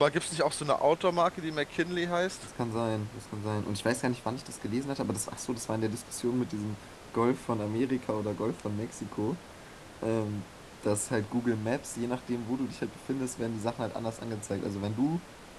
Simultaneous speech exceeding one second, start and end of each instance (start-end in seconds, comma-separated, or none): none